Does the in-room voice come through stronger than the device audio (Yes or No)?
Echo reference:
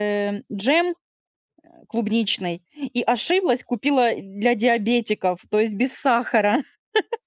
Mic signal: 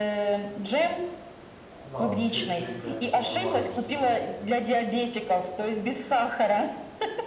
No